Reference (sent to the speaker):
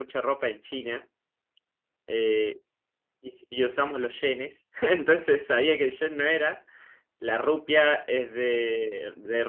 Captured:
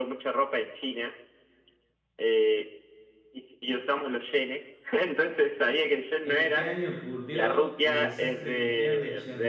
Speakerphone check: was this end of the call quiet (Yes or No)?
No